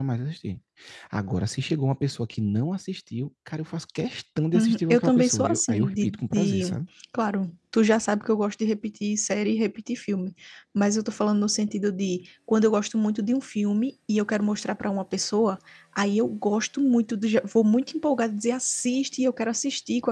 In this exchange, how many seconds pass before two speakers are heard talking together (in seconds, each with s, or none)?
4.5 s